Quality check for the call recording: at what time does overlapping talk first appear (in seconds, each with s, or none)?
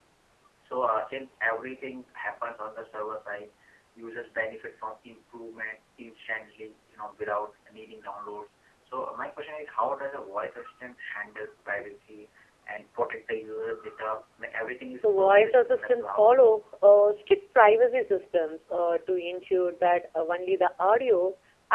15.0 s